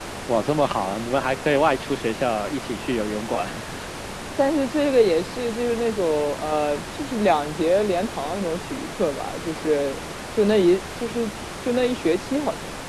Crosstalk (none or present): none